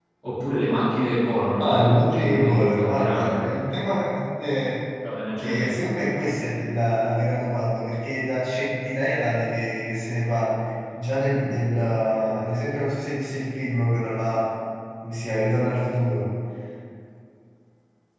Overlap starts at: 1.6 s

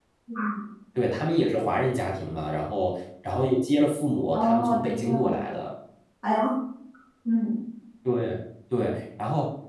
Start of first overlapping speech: 4.3 s

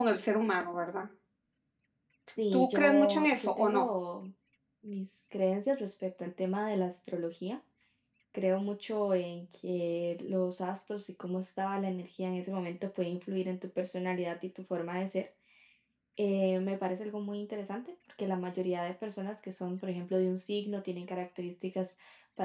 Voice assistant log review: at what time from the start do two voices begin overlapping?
2.5 s

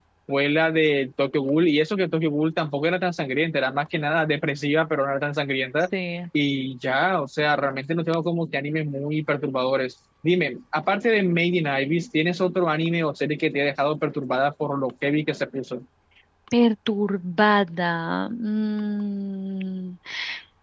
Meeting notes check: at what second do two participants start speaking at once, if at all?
none

